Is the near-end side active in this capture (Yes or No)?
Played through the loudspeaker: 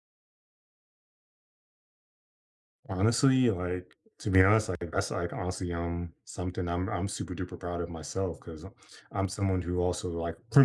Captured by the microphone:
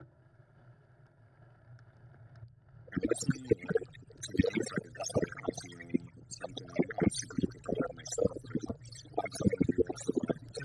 No